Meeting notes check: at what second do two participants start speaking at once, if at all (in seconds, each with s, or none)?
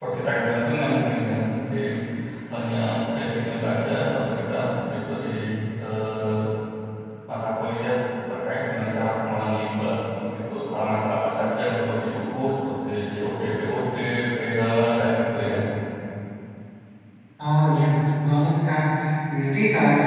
none